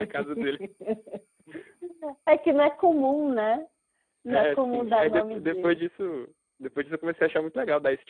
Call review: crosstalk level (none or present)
present